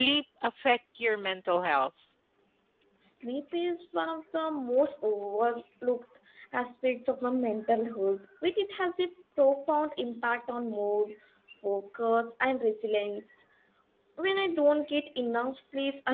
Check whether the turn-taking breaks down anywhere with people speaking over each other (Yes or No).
No